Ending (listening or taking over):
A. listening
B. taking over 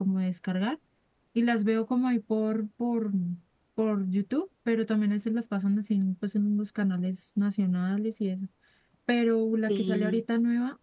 A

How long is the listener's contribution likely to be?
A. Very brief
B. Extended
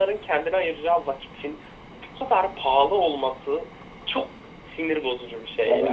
B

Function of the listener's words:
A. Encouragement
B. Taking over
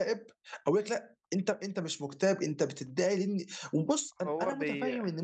A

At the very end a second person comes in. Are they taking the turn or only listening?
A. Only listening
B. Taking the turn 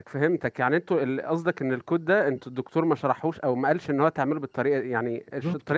B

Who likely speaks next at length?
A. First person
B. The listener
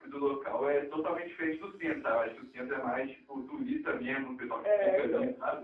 B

